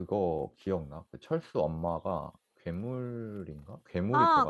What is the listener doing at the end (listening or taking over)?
taking over